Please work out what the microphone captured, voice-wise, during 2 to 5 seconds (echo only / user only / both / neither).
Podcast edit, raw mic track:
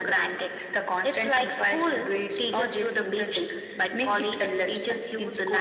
echo only